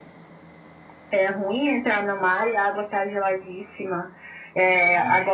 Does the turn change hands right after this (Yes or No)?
No